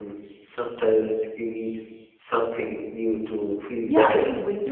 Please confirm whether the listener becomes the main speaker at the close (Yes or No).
Yes